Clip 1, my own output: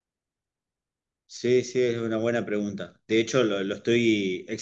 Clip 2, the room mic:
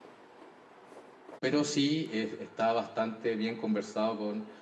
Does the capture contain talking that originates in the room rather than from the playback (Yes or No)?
Yes